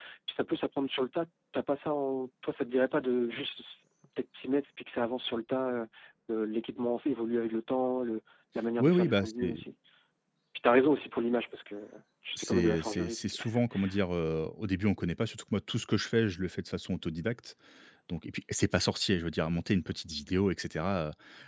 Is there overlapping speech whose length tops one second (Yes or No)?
Yes